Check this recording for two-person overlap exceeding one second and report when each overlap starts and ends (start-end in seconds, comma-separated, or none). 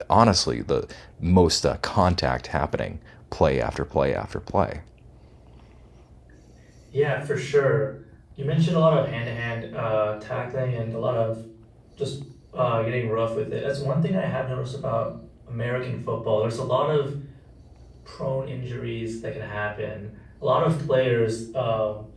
none